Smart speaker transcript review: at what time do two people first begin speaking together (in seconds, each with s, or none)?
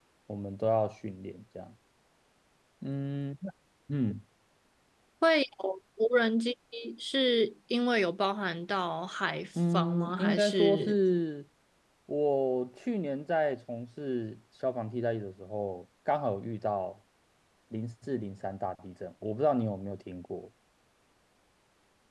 9.6 s